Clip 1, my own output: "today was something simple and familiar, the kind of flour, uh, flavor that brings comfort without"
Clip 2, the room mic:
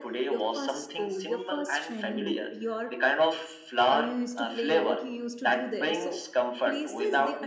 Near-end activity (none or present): present